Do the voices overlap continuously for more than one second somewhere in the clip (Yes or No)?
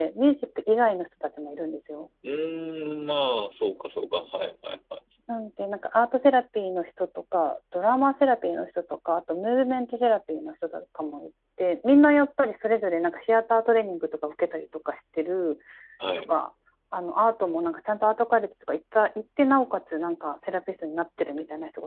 No